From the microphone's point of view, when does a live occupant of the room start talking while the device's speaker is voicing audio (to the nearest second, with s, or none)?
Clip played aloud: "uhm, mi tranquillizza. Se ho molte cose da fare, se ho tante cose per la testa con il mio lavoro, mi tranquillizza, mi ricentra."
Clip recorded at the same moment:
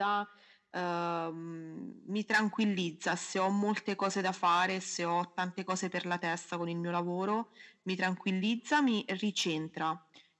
none